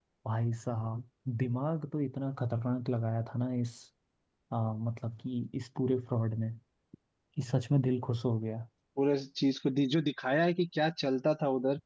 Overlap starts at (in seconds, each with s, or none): none